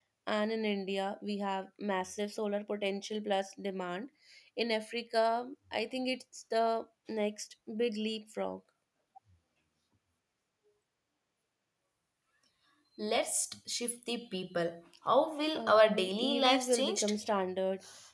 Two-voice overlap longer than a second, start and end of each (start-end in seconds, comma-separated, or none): 15.6-17.1